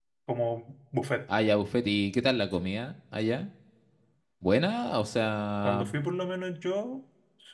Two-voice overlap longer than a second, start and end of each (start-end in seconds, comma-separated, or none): none